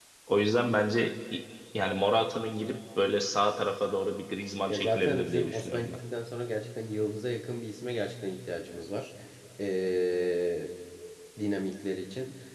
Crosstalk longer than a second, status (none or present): present